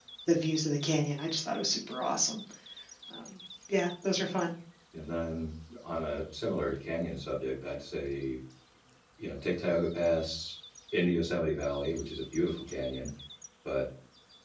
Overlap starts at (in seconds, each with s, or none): none